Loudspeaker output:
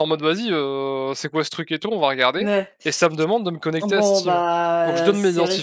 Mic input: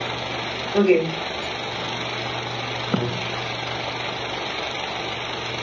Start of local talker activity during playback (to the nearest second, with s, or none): 1 s